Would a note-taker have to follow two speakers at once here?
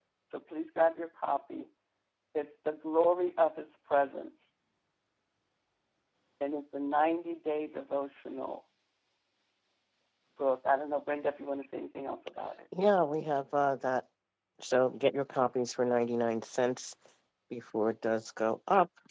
No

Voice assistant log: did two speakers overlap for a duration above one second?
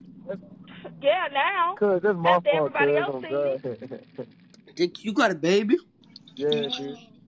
Yes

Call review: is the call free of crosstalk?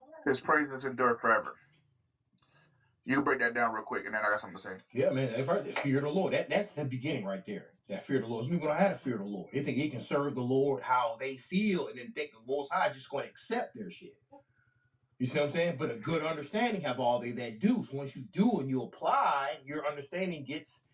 Yes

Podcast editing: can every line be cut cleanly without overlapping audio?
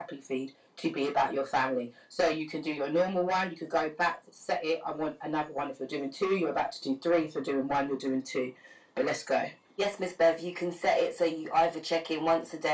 Yes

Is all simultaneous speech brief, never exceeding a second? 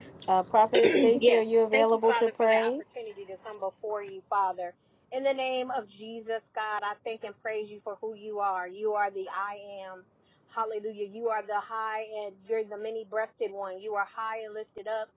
No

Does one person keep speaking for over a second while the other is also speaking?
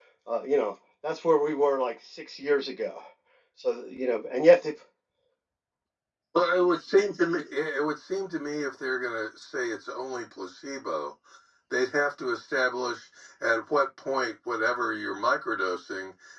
No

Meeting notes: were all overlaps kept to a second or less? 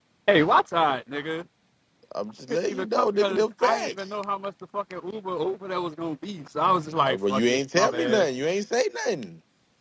No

